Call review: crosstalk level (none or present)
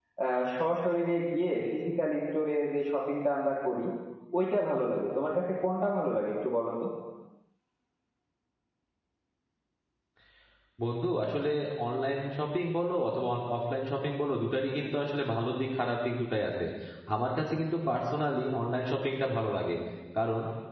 none